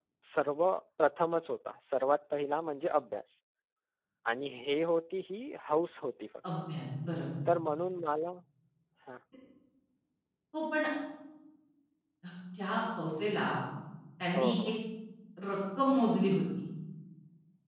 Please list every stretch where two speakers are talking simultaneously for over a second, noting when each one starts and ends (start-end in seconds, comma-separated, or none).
none